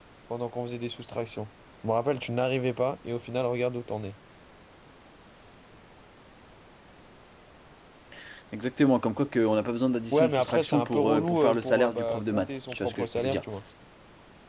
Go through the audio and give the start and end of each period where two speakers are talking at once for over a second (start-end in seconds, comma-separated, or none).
10.1-13.4